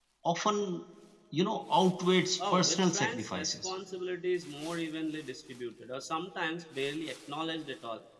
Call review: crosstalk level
present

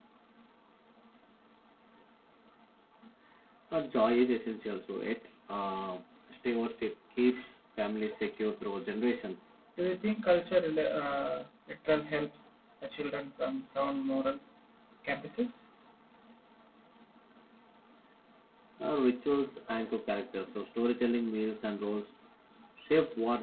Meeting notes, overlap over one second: none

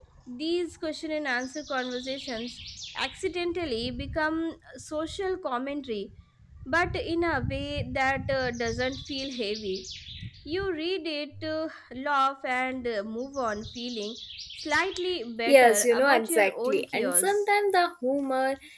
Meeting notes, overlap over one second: present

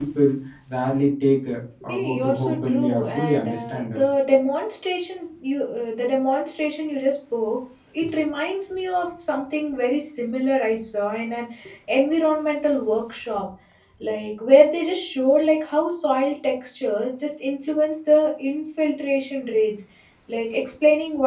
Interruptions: present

